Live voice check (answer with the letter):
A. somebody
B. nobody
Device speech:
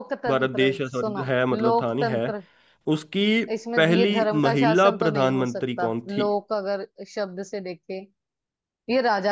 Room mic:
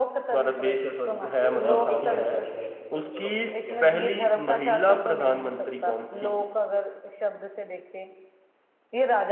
A